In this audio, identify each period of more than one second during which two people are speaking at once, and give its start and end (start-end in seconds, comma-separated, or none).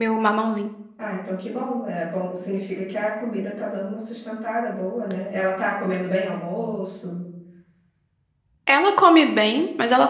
none